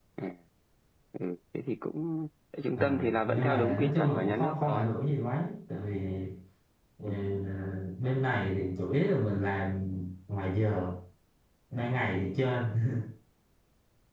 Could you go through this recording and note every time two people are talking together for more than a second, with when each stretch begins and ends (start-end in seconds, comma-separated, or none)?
2.8-4.9